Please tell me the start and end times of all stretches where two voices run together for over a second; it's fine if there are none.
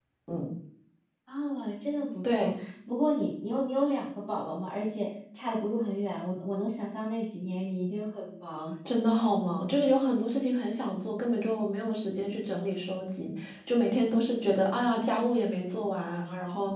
none

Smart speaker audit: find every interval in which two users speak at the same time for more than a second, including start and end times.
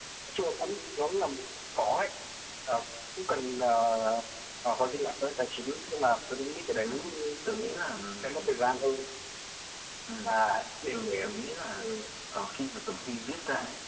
none

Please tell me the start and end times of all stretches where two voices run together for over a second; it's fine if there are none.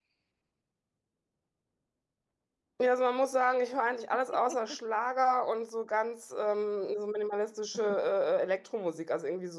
none

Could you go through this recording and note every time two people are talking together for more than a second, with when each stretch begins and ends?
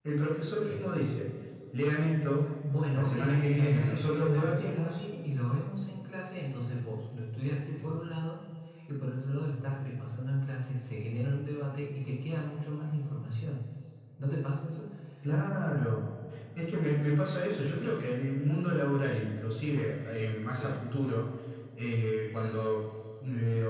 2.9-5.0

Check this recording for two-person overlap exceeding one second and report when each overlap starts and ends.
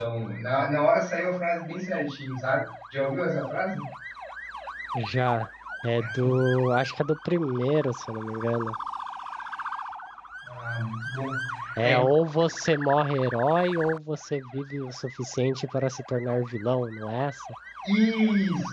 none

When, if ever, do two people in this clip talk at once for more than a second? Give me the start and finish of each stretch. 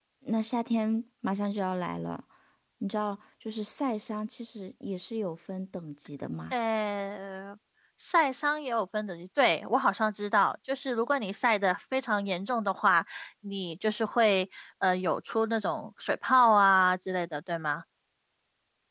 none

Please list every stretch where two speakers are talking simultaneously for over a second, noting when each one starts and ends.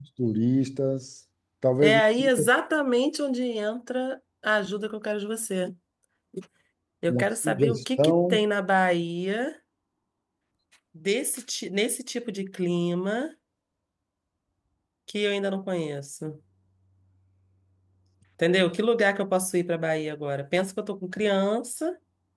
7.1-8.4

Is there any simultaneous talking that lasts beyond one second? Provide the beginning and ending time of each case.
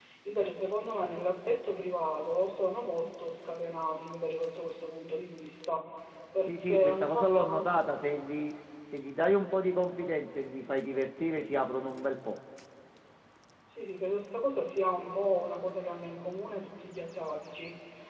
6.5-7.7

